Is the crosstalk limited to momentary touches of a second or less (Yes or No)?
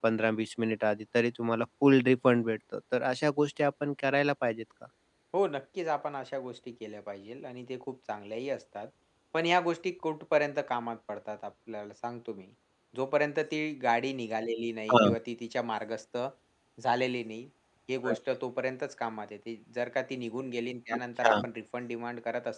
Yes